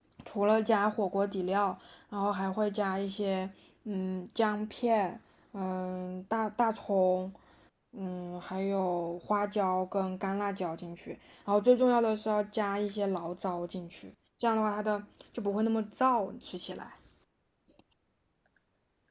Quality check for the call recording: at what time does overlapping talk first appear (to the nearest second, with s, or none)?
none